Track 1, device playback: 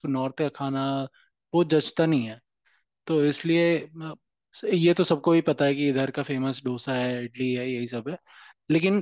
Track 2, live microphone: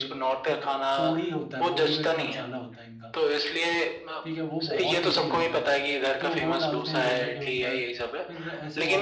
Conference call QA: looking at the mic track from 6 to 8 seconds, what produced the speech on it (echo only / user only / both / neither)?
both